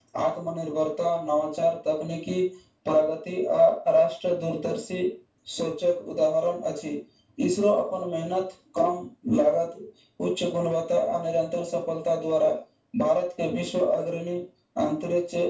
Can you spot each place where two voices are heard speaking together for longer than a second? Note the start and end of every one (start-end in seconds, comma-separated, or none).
none